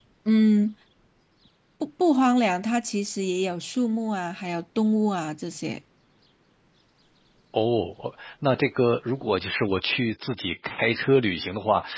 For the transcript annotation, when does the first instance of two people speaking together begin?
none

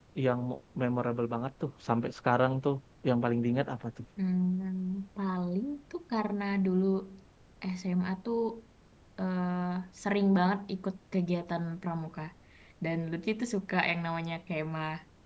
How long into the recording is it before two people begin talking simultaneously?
none

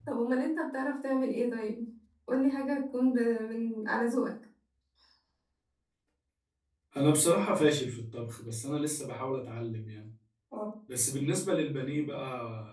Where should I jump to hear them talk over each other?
none

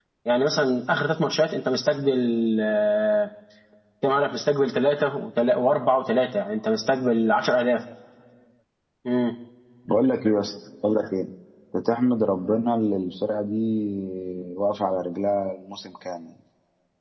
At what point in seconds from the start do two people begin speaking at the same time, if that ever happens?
none

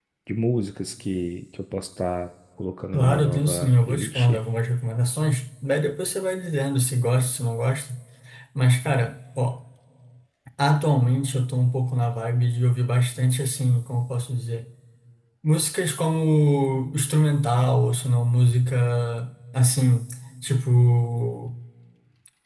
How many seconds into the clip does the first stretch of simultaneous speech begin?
2.9 s

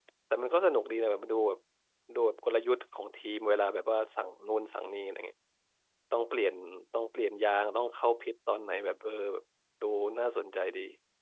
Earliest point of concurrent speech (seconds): none

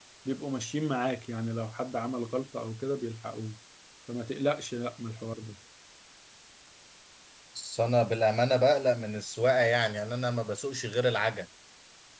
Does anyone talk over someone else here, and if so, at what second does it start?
none

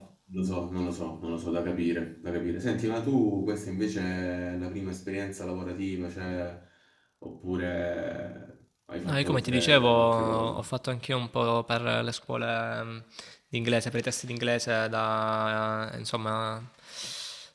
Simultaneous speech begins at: 9.0 s

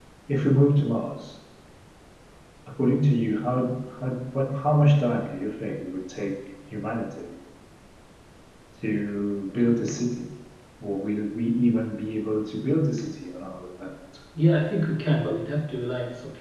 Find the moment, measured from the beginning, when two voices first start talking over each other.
none

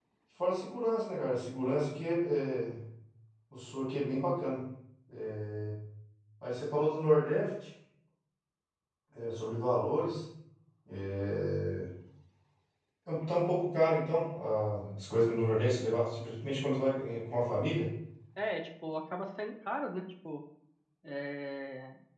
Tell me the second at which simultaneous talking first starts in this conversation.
none

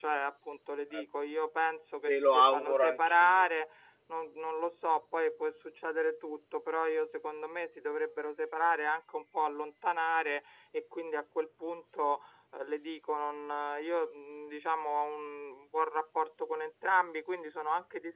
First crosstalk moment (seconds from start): 2.1 s

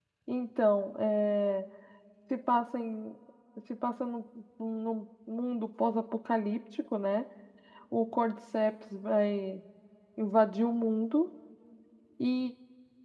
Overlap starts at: none

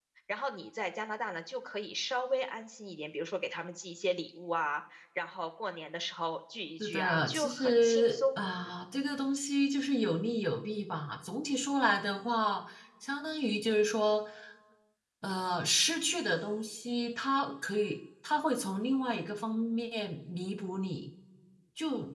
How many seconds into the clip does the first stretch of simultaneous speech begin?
6.8 s

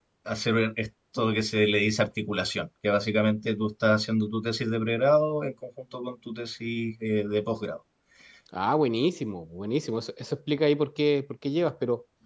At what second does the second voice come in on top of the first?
none

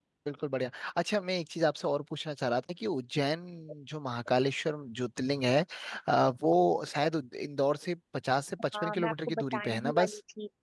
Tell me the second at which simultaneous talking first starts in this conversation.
8.7 s

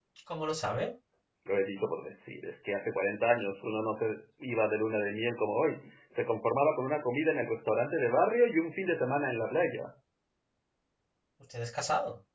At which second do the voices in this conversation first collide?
none

